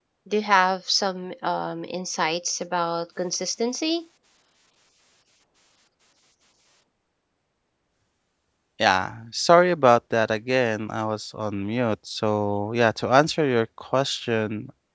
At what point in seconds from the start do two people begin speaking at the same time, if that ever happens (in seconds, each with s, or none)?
none